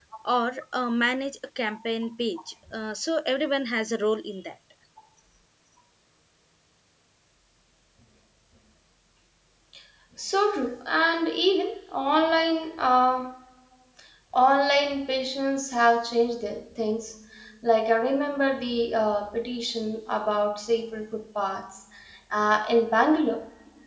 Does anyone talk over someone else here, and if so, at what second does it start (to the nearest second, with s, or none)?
none